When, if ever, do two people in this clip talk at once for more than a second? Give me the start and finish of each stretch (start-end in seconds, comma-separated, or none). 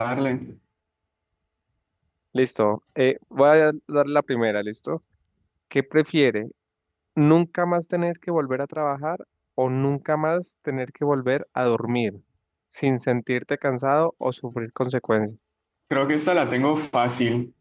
none